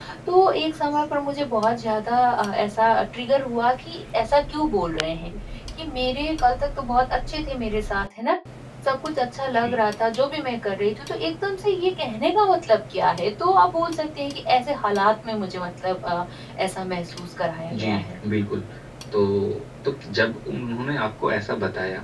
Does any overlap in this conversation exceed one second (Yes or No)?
No